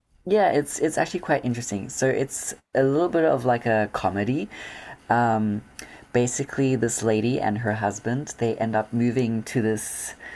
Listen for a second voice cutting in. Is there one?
No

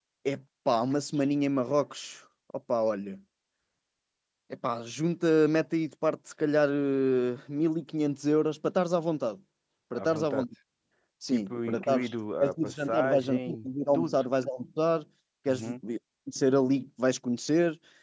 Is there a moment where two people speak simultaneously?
Yes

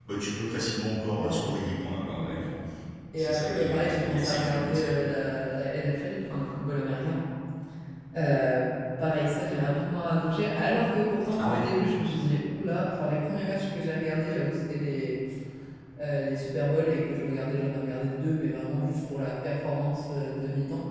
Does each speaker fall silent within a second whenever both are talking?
No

